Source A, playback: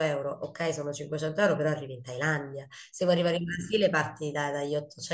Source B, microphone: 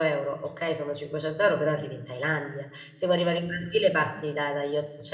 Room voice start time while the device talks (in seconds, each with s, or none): none